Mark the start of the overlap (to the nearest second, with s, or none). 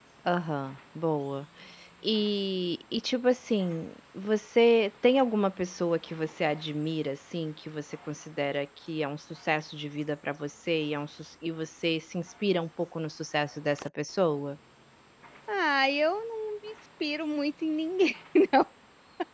none